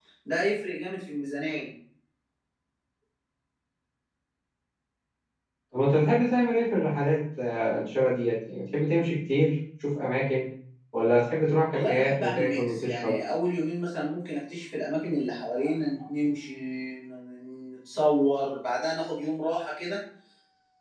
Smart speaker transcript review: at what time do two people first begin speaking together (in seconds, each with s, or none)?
11.7 s